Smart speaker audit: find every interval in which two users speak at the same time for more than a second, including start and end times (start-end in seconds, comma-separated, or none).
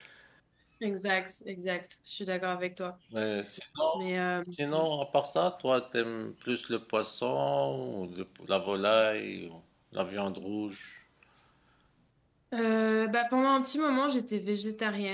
none